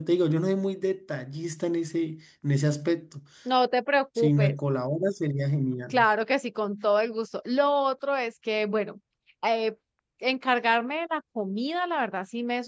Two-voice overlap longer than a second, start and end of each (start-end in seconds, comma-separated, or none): none